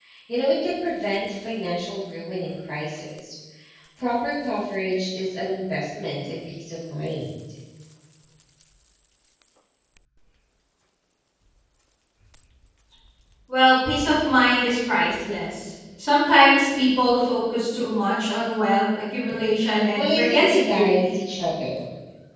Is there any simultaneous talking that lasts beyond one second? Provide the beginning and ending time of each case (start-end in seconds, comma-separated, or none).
20.0-21.2